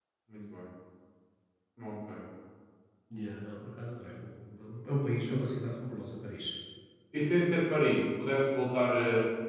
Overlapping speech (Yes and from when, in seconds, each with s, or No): No